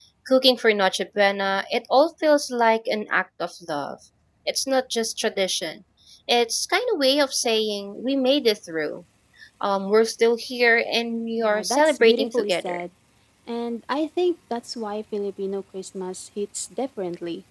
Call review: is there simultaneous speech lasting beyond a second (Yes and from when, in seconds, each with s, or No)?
Yes, from 11.4 s